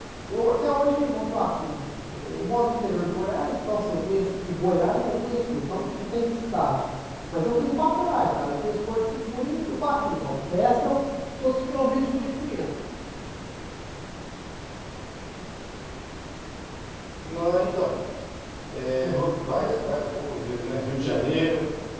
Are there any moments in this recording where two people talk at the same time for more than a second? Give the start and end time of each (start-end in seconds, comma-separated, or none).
none